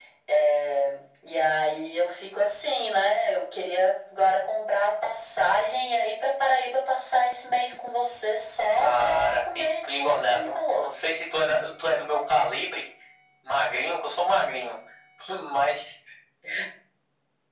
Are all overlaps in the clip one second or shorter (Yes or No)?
No